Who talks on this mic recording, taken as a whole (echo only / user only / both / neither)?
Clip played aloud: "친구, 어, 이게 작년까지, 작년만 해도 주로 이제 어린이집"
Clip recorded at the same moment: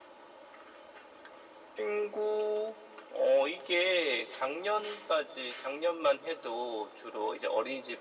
echo only